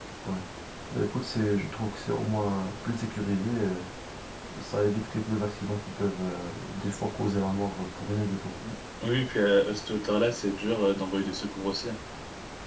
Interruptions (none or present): none